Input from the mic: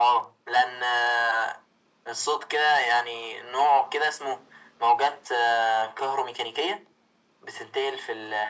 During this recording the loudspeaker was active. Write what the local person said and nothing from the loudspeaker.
none

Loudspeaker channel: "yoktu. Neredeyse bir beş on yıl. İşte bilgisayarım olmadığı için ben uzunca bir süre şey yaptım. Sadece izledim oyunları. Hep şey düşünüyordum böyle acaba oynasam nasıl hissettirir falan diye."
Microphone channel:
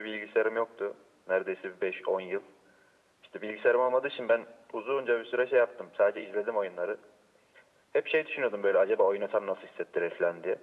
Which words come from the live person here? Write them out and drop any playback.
none

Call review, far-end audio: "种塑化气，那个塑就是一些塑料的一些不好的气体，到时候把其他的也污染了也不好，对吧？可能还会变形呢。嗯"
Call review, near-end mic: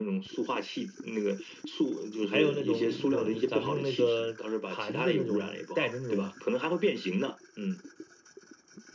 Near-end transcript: 还有那种那种咱们用那个盘子那种带着那种

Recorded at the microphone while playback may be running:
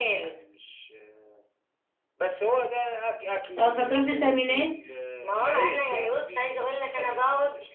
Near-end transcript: اه فتروح التأمينات

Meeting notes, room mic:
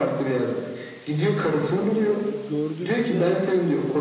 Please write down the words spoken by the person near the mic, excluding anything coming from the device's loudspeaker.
e, gördüğümde de

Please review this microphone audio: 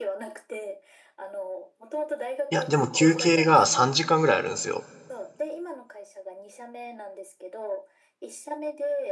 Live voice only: いや、でも休憩が3時間ぐらいあるんですよ。

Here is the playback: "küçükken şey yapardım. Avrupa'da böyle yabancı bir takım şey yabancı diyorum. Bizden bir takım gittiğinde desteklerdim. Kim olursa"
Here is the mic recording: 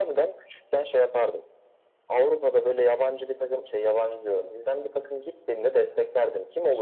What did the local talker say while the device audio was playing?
none

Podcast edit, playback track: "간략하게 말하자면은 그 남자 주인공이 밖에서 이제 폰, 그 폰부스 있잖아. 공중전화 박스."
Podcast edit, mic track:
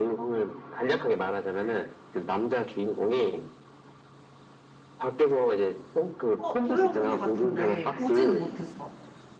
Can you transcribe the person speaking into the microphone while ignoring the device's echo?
어, 들어본 것 같은데, 보진 못했어.

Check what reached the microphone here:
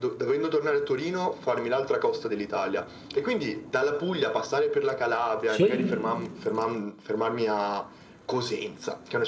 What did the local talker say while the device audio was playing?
Sì?

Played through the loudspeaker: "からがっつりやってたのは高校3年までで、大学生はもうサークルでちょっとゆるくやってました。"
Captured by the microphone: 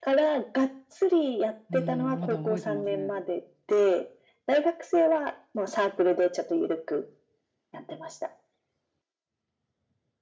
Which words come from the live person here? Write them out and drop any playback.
うん、まだ覚えてますね。

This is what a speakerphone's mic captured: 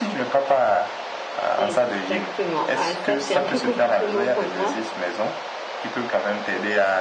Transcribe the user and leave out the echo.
Exactement. Ah, ça, c'est un peu compliqué, moi, pour moi.

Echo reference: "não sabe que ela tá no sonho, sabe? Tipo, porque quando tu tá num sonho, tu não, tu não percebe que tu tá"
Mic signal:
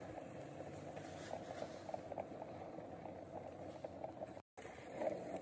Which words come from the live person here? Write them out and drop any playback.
none

